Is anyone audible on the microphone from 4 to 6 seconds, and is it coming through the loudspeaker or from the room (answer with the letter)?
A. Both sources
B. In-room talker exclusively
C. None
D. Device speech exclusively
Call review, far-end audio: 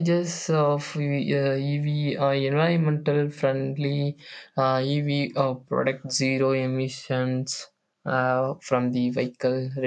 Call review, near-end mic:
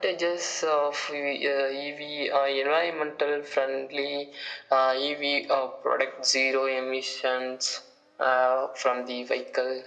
D